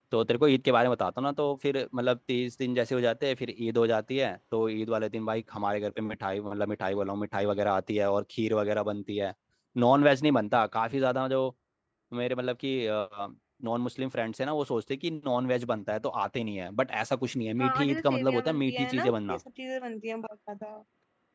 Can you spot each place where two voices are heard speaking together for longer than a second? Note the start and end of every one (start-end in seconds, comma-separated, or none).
17.6-19.4